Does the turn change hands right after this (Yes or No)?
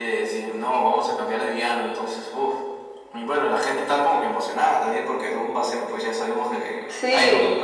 Yes